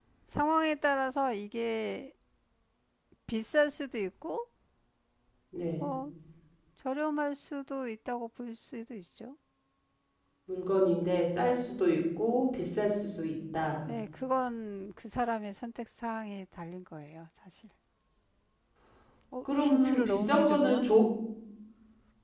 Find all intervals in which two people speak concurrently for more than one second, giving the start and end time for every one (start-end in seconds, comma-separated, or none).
19.6-20.9